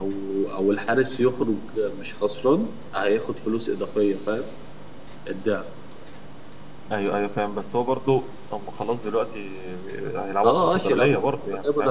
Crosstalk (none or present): present